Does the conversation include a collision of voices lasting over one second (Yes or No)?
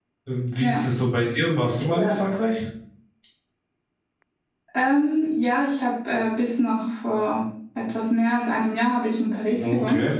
No